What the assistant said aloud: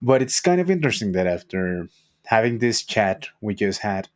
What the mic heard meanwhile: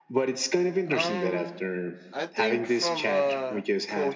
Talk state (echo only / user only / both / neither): both